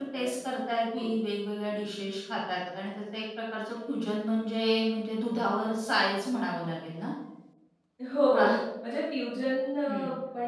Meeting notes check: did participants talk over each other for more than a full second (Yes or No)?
No